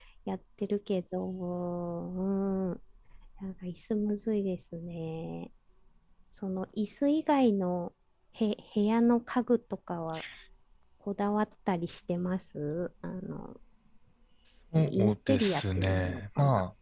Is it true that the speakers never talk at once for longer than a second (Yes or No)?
No